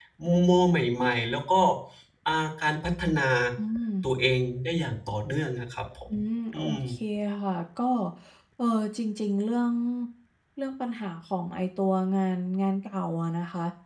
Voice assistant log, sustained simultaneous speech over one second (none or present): none